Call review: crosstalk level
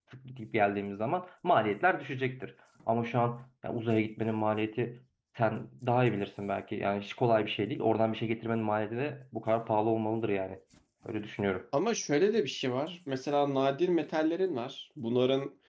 none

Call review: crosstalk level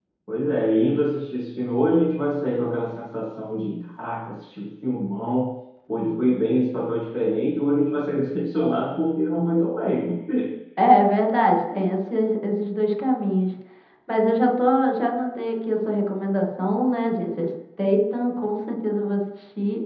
none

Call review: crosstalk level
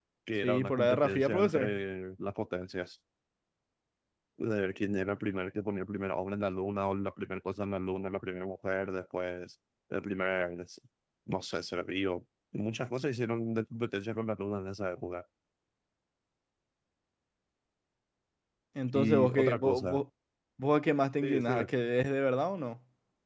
present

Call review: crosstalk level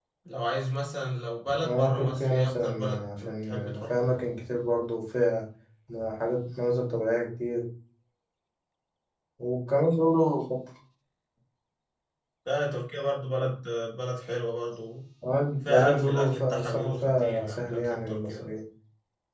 present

